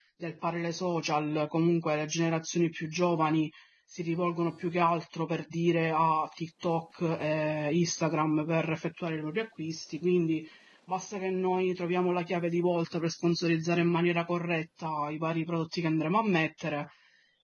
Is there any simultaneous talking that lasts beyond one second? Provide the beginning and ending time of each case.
none

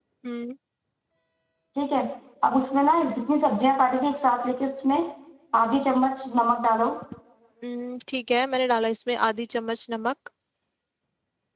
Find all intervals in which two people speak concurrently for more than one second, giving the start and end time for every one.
none

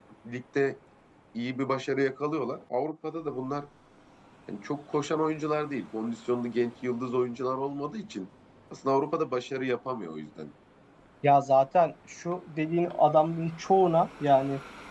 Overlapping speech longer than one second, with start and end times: none

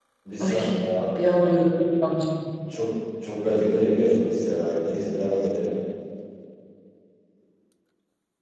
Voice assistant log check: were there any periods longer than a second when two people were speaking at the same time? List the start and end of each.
none

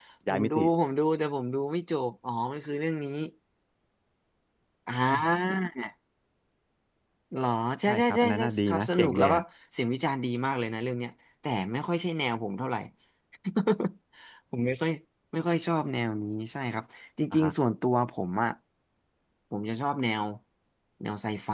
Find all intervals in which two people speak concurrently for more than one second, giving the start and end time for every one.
7.9-9.4

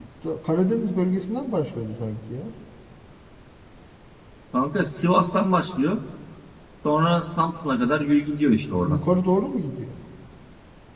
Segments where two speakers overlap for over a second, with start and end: none

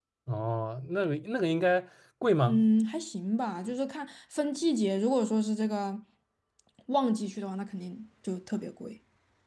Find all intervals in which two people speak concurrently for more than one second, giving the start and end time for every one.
none

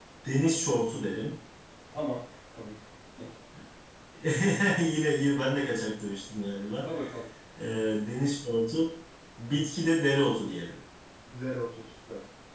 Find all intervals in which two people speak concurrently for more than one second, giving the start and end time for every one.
none

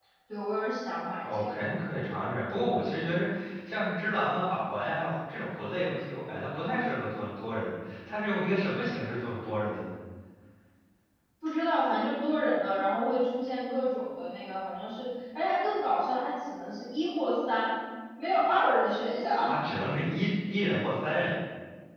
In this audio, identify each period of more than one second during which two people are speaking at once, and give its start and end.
none

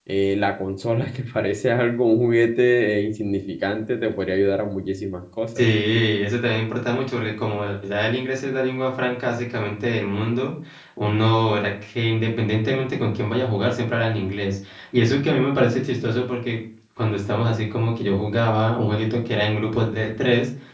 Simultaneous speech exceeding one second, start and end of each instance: none

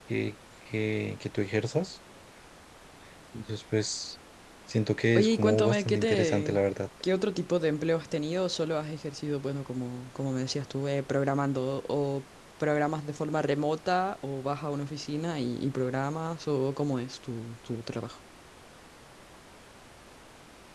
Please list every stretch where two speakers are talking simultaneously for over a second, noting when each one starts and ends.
5.2-6.6

